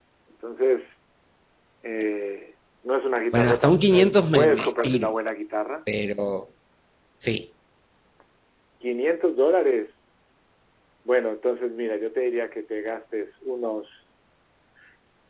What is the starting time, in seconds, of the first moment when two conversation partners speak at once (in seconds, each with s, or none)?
3.3 s